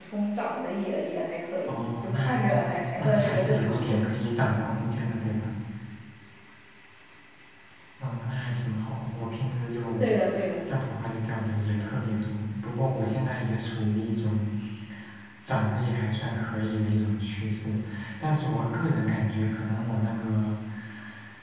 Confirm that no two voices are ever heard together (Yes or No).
No